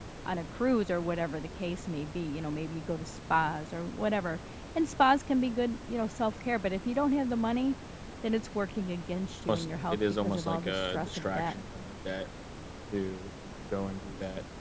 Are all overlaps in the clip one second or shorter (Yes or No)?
No